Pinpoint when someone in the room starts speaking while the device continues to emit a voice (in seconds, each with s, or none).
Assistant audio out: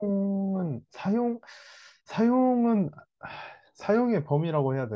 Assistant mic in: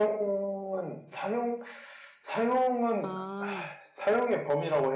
3.0 s